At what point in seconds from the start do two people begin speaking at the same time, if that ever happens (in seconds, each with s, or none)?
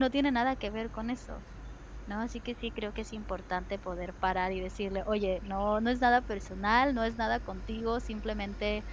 none